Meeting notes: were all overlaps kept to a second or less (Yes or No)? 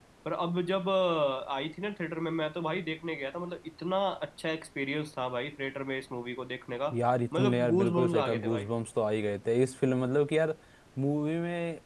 No